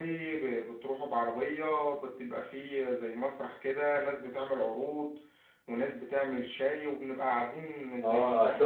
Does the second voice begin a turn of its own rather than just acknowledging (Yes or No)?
Yes